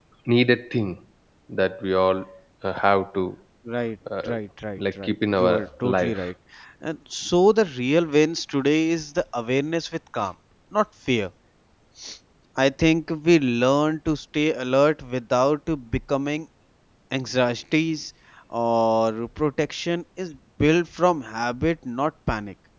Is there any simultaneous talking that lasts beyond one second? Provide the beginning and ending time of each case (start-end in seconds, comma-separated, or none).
4.8-6.3